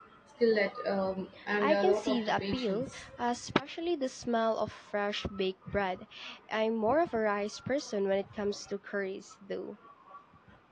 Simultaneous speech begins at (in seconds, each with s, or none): 1.6 s